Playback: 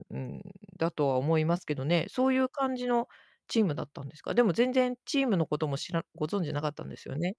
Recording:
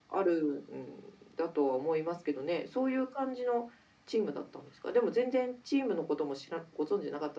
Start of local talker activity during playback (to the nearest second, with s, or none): none